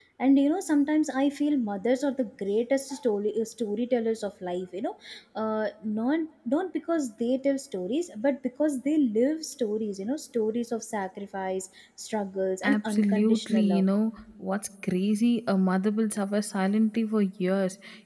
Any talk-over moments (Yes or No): Yes